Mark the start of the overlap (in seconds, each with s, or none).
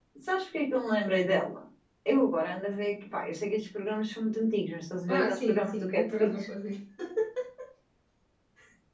5.1 s